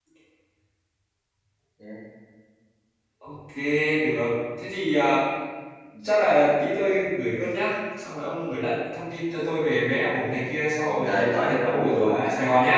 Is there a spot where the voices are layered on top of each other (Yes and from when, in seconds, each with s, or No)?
Yes, from 10.8 s